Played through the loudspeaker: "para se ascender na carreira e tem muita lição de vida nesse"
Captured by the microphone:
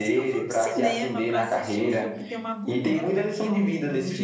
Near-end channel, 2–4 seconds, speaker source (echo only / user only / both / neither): both